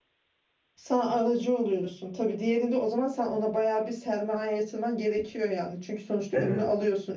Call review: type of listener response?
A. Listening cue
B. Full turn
A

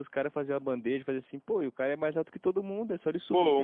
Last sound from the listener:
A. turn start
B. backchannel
A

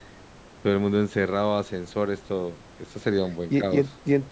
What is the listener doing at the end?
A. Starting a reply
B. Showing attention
A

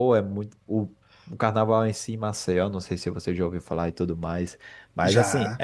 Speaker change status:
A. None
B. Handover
A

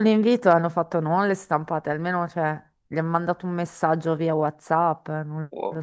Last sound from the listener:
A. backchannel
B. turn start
B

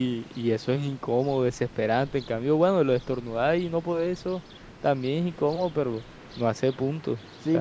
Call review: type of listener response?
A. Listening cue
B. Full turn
B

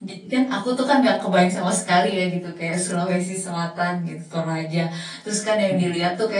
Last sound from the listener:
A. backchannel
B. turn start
A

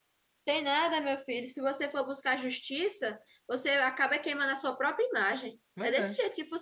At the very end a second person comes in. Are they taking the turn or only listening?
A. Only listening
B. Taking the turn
A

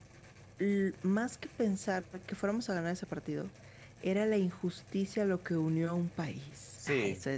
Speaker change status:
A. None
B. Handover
B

